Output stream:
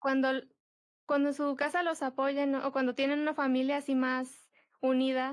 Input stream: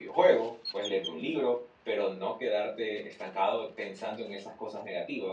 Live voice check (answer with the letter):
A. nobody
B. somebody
B